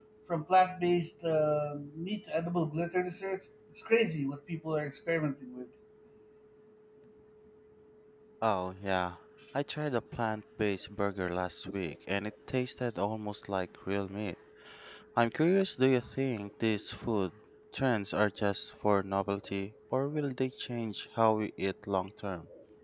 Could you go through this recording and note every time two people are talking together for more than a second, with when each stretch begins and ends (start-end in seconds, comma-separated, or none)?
none